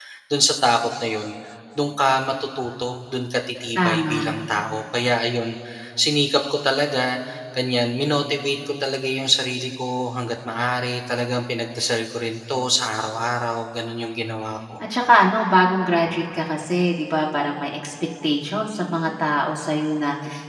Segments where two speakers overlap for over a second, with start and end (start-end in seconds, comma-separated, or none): none